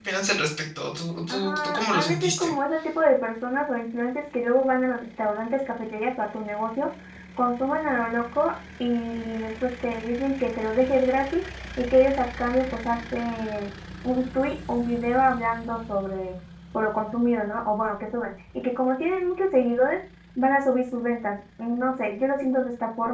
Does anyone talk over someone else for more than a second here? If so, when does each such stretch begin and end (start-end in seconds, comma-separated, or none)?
1.3-2.5